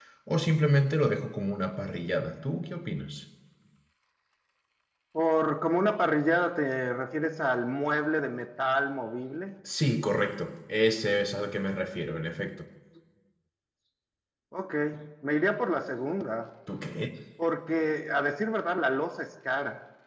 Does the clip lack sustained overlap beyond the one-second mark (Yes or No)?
Yes